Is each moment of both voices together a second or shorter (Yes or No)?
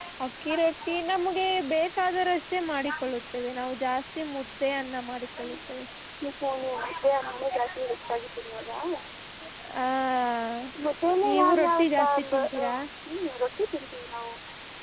No